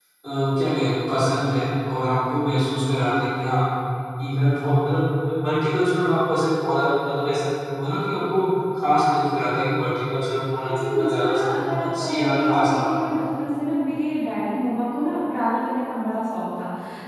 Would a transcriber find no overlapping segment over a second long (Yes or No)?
No